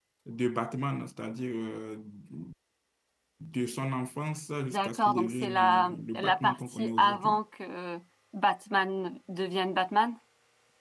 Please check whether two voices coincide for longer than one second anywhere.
Yes, from 4.7 s

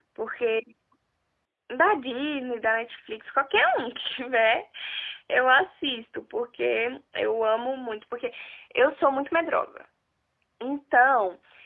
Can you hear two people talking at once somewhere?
No

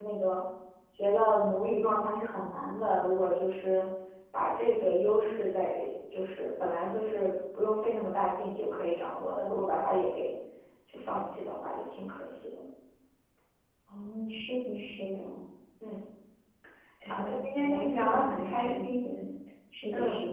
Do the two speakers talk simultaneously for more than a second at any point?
Yes, from 17.1 s

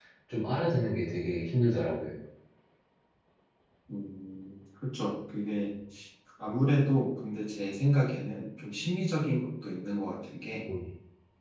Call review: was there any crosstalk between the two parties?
No

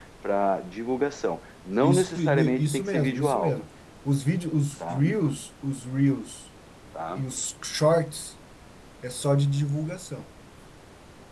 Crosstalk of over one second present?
Yes, from 1.8 s

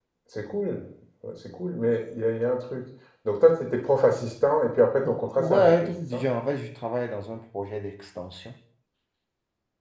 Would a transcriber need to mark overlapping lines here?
Yes, from 5.0 s

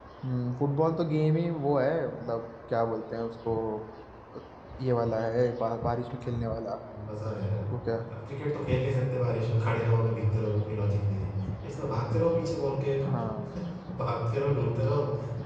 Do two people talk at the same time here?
No

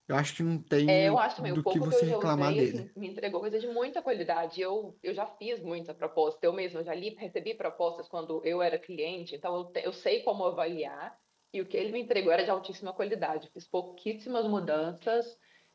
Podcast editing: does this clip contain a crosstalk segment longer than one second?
Yes, from 0.9 s

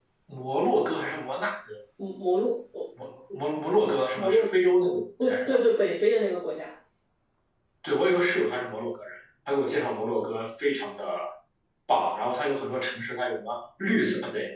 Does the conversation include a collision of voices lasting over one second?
No

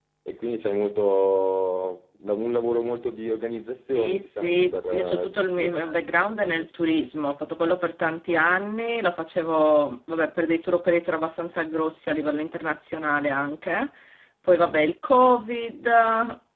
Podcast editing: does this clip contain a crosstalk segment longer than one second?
Yes, from 4.0 s

